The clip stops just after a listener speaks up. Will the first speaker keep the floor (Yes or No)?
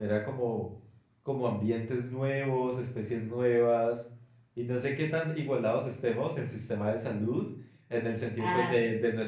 Yes